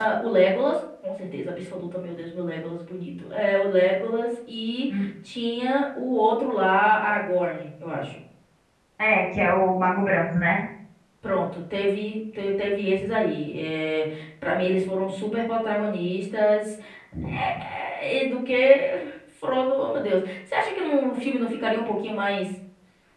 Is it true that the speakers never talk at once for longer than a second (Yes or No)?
Yes